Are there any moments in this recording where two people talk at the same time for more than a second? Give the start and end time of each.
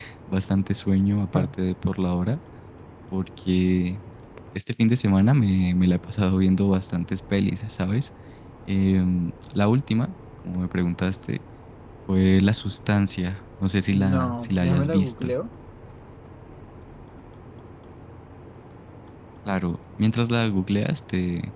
13.9-15.3

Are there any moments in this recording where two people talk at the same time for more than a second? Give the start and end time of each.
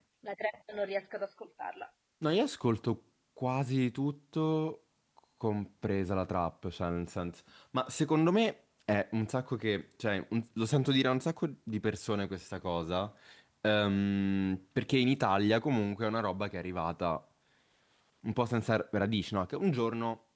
none

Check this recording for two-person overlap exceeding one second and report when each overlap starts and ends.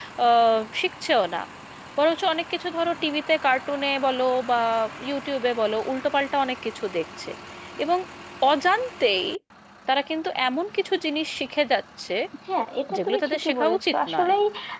13.0-14.3

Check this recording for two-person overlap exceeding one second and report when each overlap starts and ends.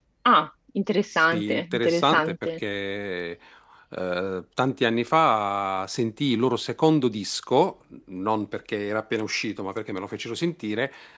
1.1-2.5

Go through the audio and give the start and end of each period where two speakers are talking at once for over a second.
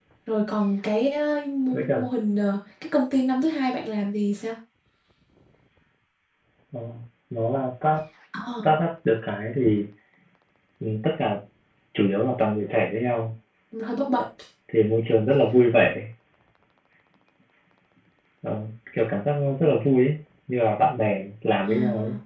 none

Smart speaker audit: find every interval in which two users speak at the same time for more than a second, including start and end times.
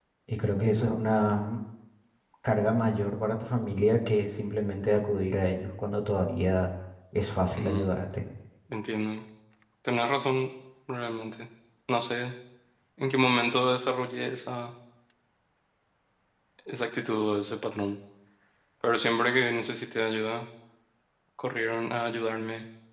none

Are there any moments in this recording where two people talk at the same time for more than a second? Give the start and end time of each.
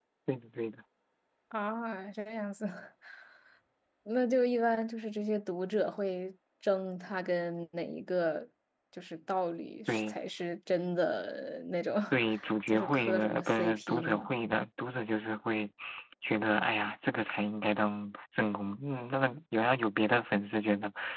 12.7-14.3

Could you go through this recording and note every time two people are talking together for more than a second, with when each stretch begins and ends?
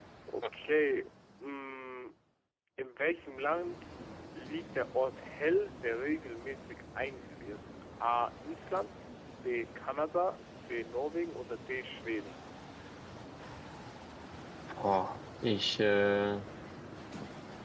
none

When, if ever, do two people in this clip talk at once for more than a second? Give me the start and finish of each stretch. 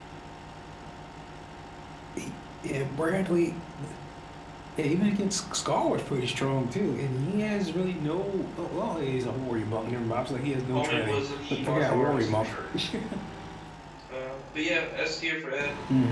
10.7-12.5

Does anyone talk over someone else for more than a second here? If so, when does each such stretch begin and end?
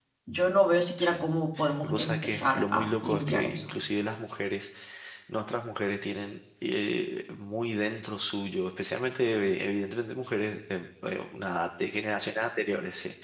1.8-3.8

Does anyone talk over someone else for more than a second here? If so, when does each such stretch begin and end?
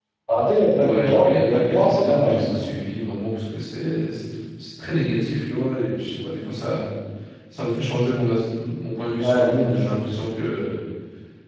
0.8-2.7

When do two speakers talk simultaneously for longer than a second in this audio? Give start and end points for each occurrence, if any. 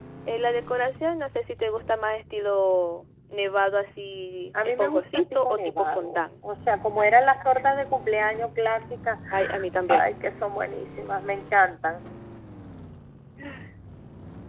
4.6-6.2

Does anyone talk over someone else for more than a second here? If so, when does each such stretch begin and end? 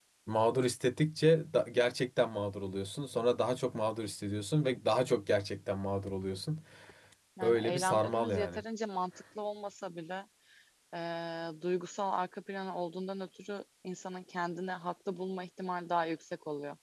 7.4-8.6

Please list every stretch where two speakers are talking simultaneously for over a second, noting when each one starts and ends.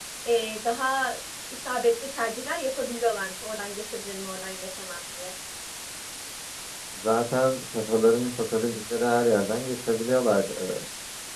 none

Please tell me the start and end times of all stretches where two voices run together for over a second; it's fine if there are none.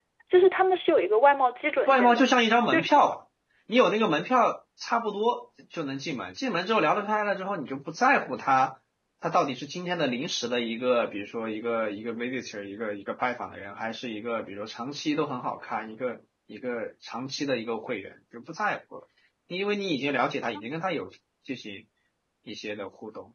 none

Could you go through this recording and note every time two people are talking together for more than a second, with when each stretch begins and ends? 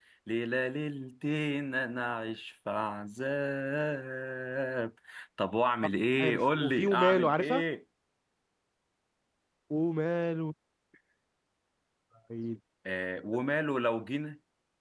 6.2-7.6

